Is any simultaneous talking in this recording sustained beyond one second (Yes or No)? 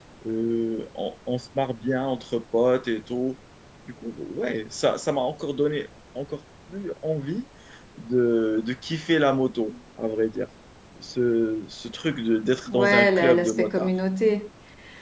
Yes